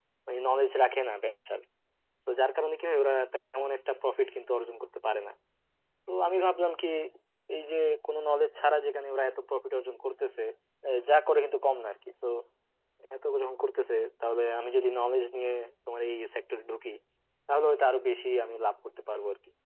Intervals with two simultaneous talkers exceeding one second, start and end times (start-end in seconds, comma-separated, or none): none